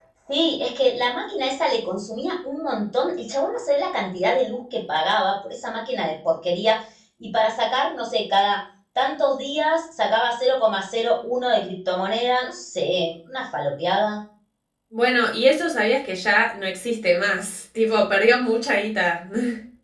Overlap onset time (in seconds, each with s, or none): none